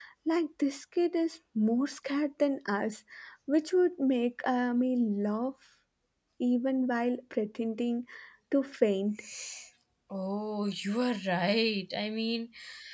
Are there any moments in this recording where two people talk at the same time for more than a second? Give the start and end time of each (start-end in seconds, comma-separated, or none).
none